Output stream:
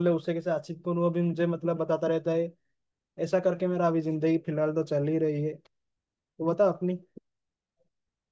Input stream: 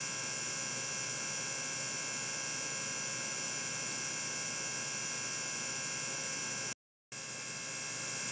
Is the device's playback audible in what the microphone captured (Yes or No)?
No